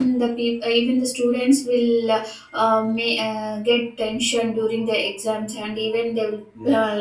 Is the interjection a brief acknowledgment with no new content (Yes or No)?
Yes